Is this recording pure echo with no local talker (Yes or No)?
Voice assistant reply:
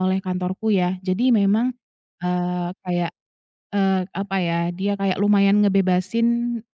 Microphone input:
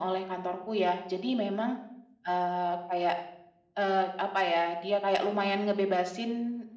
Yes